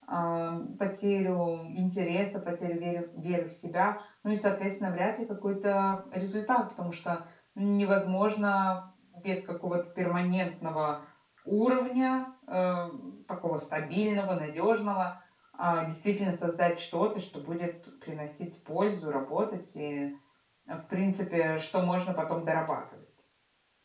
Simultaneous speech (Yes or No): No